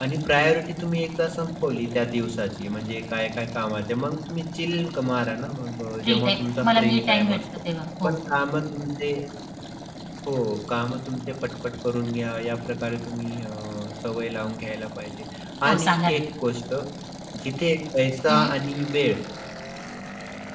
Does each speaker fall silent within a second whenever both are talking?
No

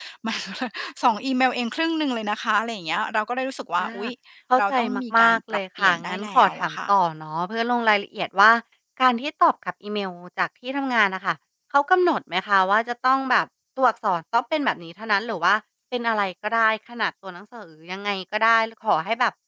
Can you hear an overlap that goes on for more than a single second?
Yes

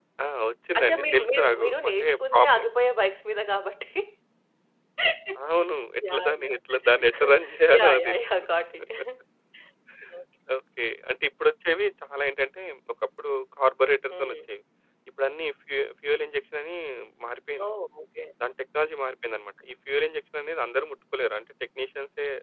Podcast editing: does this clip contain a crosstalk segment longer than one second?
Yes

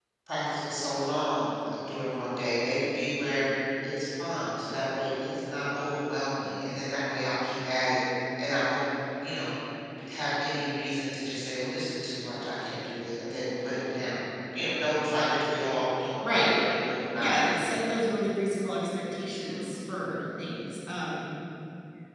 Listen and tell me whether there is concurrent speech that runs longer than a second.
No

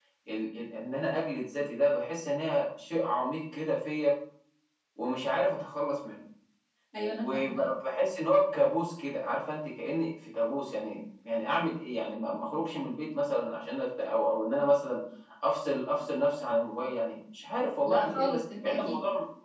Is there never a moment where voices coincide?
No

